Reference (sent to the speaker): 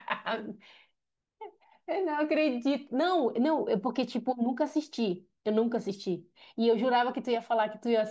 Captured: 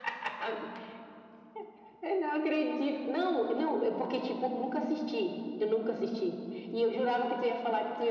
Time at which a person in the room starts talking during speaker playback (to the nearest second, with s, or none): none